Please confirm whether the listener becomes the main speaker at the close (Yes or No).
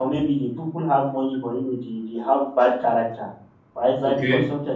No